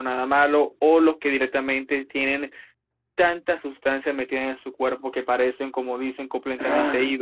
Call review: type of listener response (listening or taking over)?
taking over